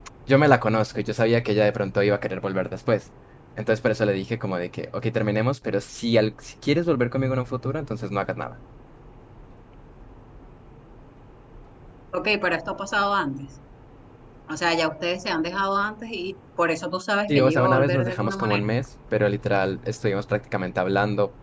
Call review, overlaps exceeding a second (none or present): present